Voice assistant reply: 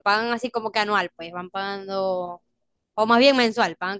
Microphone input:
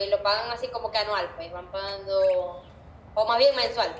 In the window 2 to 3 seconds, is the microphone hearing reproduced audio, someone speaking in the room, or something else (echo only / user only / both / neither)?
echo only